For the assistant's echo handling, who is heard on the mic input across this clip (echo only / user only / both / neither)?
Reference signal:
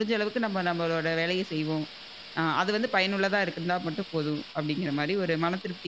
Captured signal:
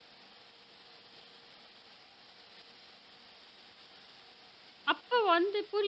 user only